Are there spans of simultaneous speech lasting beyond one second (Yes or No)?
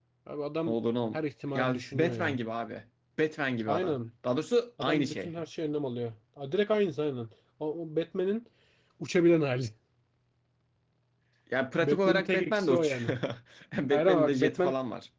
Yes